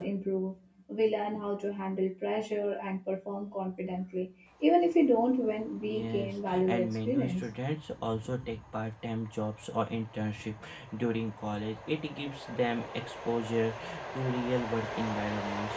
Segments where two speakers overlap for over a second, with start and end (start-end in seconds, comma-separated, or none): 5.8-7.4